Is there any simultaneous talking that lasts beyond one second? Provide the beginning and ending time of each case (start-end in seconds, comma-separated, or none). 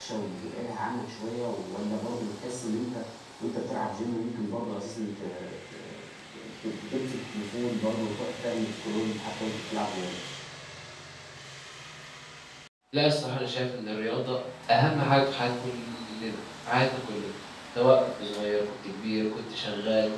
none